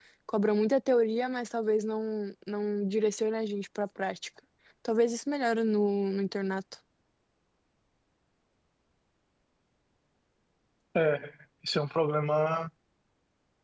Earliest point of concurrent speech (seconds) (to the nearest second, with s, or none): none